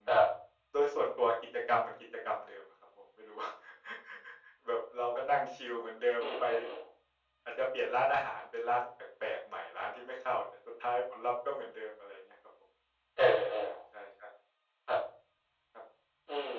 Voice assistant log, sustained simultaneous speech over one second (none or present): none